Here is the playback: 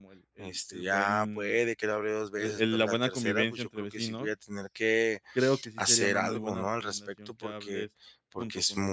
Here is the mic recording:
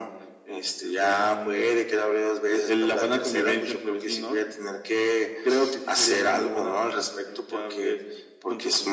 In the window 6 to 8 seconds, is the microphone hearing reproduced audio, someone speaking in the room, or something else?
echo only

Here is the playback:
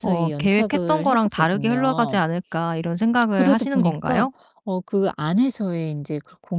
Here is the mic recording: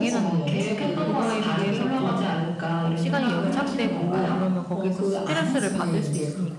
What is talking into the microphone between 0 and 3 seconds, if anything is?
both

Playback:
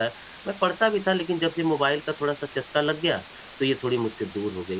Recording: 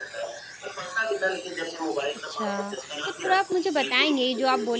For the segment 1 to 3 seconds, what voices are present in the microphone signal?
both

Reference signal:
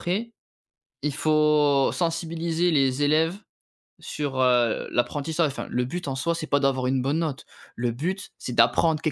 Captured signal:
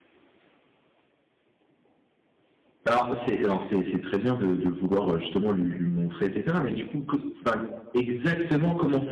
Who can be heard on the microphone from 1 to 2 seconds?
neither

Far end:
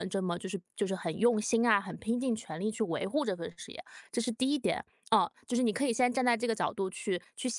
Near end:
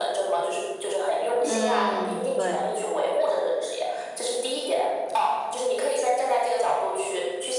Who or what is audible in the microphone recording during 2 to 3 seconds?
both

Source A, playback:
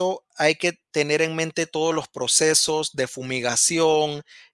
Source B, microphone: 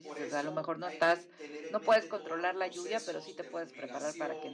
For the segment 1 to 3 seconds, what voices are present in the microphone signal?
both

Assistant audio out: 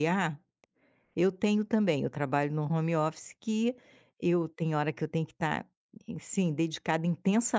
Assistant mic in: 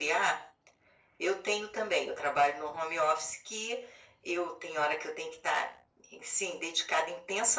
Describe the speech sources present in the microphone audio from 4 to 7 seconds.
echo only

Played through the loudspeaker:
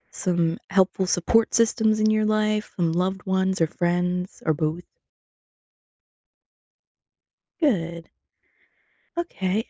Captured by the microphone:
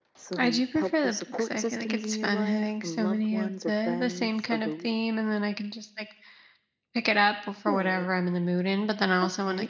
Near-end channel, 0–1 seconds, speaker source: both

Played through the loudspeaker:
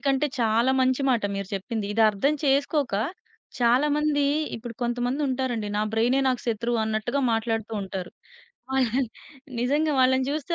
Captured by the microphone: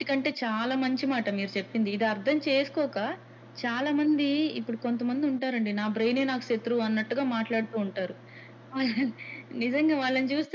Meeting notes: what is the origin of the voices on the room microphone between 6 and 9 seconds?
echo only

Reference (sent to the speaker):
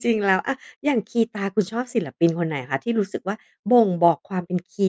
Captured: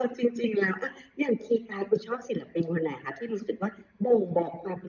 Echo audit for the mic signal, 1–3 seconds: echo only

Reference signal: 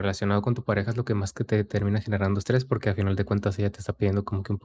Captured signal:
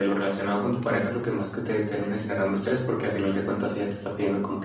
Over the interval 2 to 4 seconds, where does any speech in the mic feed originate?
echo only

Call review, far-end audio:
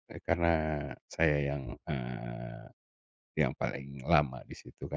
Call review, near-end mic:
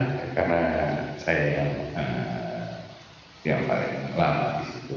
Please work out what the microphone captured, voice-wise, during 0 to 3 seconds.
echo only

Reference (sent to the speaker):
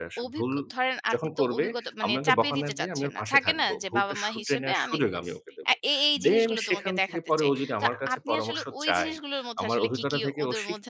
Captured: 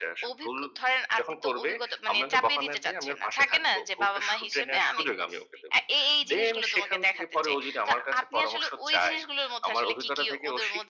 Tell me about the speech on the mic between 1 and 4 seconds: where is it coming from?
echo only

